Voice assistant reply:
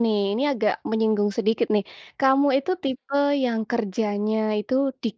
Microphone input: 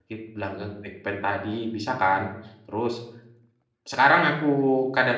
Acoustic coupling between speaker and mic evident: No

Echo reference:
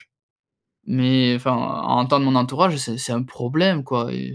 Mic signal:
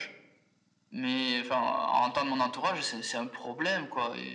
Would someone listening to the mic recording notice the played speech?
Yes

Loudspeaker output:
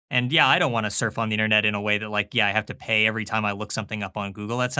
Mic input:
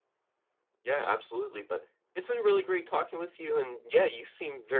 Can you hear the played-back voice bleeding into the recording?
No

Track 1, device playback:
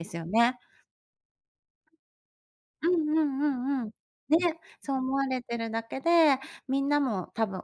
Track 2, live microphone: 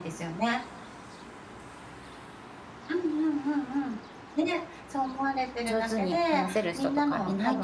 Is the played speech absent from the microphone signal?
No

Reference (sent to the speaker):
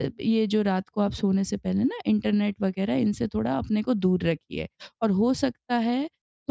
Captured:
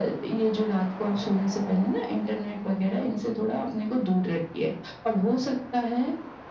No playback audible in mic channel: No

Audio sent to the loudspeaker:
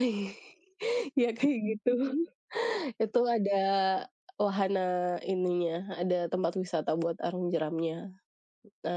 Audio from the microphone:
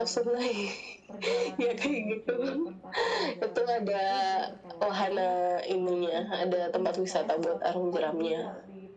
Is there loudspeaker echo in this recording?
Yes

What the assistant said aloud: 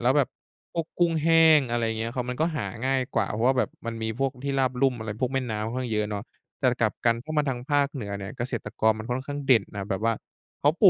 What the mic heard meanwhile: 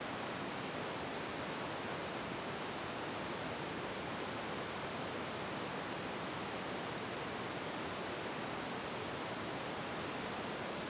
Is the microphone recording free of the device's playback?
Yes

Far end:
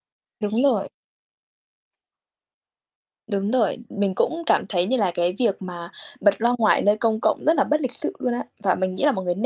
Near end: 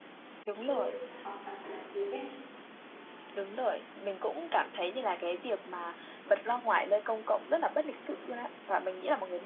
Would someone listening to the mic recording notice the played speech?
Yes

